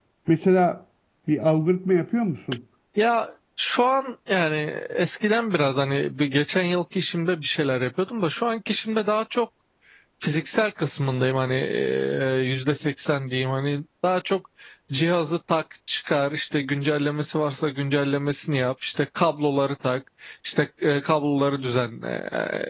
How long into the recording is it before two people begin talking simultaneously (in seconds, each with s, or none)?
none